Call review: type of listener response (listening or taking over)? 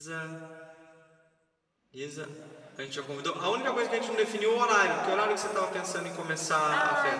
taking over